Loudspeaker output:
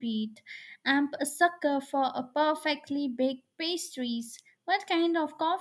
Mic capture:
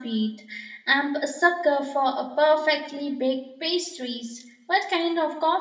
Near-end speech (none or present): none